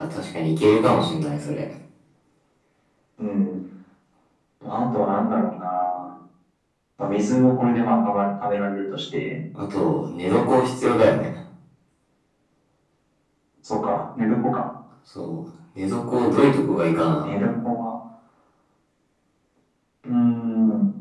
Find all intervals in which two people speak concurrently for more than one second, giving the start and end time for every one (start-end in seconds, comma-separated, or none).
none